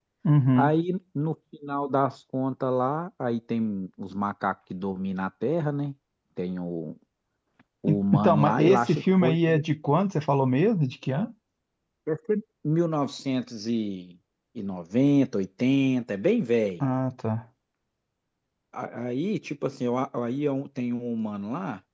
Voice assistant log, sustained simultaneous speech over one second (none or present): present